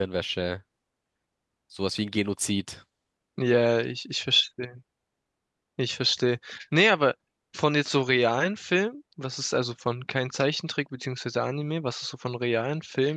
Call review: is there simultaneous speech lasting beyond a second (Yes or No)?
No